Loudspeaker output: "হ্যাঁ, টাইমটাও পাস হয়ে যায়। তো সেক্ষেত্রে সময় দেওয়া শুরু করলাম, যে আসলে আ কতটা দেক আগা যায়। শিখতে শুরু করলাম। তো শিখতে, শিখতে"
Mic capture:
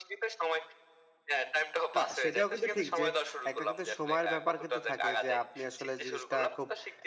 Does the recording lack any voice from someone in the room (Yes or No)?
No